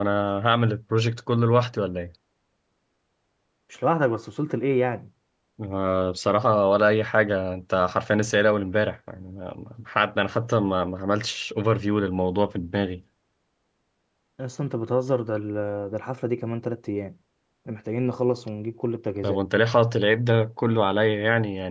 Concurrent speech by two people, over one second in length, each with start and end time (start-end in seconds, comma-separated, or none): none